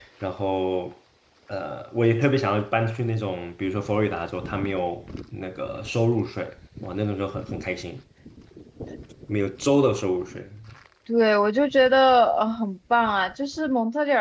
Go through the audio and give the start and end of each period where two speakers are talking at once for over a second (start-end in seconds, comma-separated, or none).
none